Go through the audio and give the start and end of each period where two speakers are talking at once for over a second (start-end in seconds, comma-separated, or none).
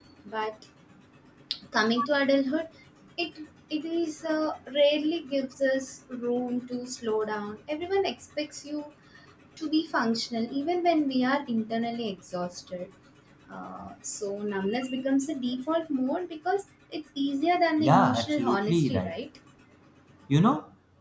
17.8-19.1